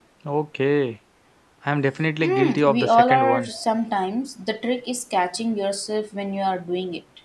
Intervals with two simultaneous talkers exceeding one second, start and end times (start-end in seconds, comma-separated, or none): 2.2-3.5